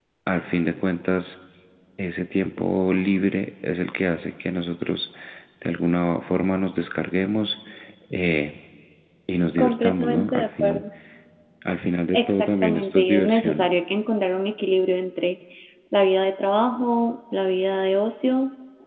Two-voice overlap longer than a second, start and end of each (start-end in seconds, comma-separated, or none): 9.6-10.8, 12.1-13.7